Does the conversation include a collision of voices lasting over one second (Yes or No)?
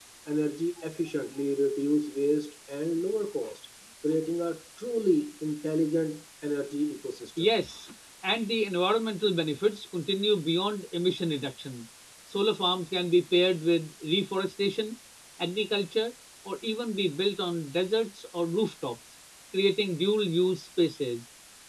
No